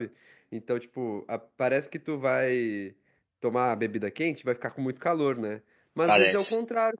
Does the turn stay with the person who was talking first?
Yes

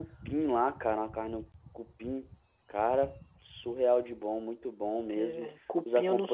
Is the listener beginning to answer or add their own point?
Yes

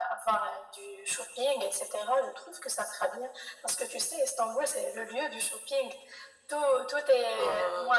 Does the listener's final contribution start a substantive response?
No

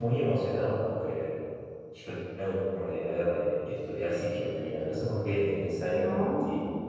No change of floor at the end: Yes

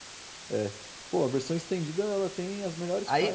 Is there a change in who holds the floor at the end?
Yes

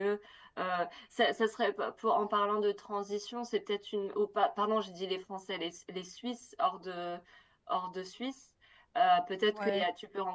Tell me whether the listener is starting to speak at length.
No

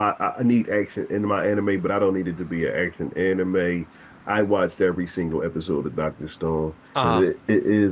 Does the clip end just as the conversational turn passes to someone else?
No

